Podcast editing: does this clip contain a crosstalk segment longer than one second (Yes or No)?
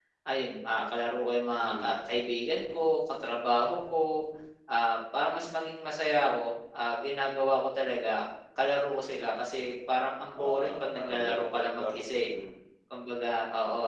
Yes